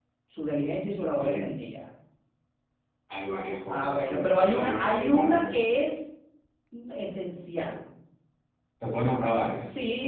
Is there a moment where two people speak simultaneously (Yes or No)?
Yes